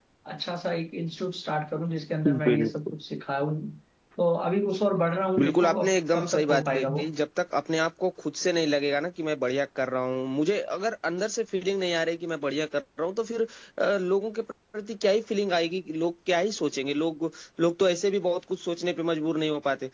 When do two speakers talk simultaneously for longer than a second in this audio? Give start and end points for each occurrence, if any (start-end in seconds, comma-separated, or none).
5.4-7.0